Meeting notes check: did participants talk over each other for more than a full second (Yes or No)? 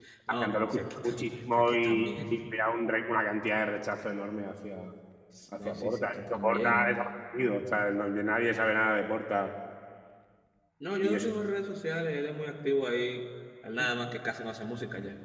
Yes